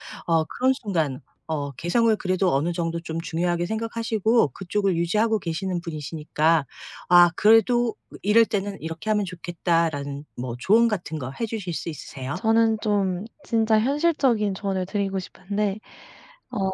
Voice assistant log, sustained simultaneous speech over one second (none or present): none